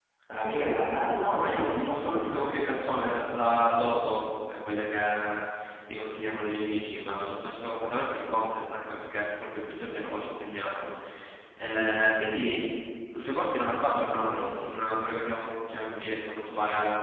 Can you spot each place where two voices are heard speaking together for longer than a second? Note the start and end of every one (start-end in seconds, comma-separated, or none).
1.1-2.7